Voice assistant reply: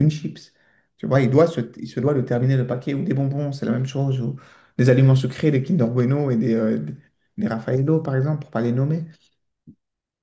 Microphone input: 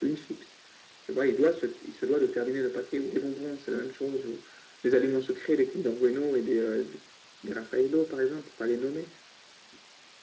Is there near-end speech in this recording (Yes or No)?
No